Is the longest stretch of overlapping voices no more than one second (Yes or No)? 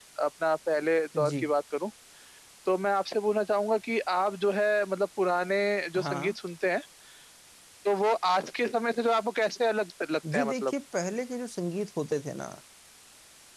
Yes